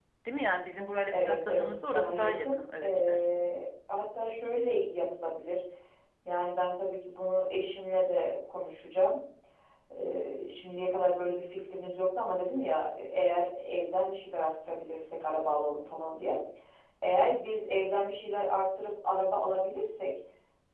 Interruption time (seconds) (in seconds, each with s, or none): 1.1 s